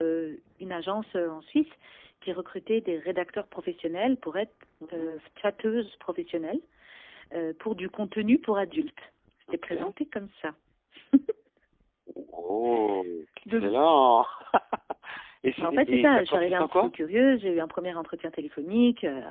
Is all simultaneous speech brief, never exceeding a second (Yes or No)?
No